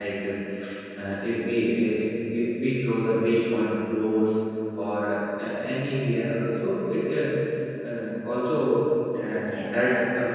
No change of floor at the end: No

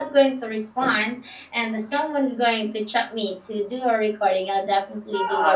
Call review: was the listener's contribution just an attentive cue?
No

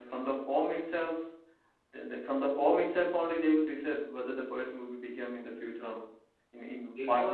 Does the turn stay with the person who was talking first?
No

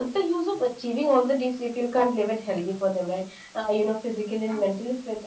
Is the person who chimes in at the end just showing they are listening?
Yes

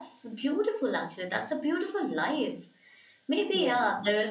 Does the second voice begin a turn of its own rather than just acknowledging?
No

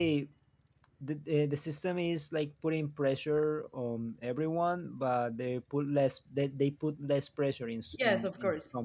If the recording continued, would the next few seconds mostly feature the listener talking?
Yes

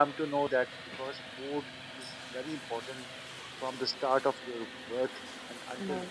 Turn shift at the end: No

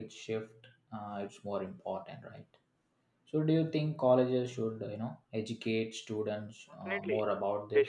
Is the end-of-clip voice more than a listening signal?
Yes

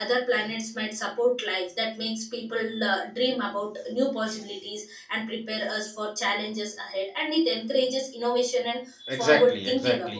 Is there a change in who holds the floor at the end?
Yes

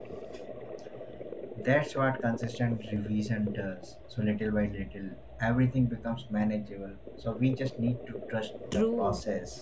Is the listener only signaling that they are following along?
No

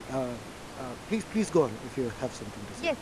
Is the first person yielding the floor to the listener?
Yes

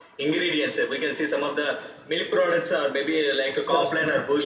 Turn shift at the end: No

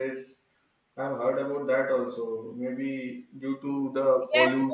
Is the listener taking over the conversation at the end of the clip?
No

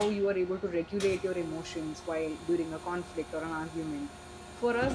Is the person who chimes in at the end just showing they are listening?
Yes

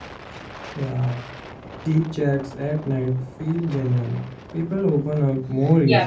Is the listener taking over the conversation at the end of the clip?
Yes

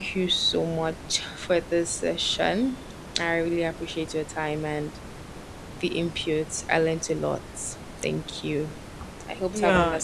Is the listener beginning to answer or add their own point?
Yes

